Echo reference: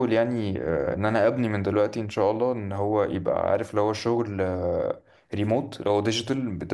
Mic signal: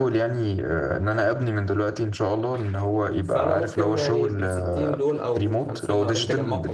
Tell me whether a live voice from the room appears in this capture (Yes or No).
Yes